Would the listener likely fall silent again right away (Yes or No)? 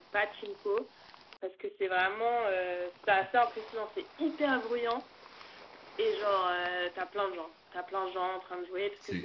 Yes